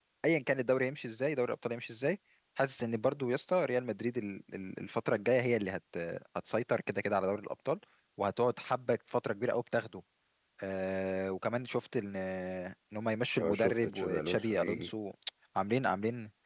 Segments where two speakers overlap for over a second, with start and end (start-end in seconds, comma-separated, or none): 13.4-14.9